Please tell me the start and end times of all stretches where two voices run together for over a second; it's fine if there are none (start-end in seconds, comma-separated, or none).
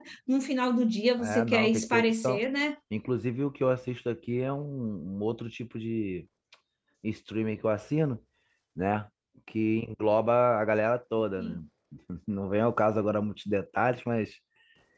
1.2-2.4